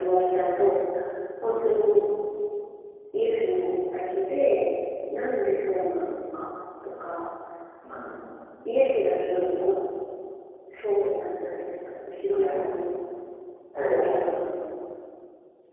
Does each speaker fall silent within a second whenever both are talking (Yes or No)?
Yes